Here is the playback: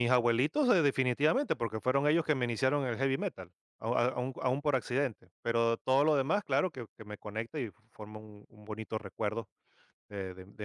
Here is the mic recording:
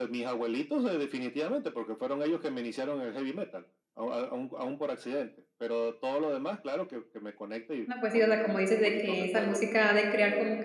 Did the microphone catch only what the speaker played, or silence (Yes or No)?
No